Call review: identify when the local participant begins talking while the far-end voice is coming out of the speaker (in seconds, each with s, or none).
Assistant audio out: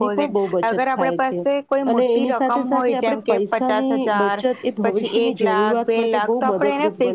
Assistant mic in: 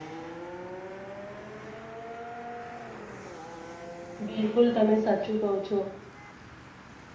4.3 s